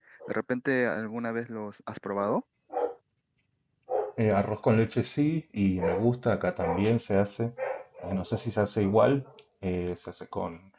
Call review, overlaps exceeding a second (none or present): none